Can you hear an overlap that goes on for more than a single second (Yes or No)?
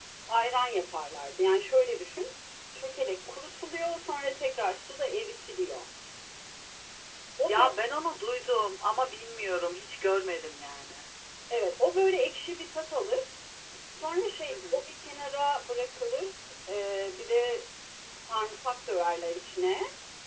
No